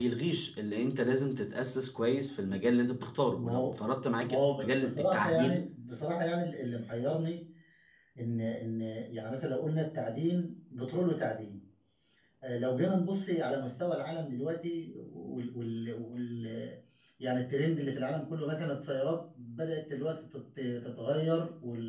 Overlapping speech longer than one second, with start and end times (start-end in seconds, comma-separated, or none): 4.2-5.6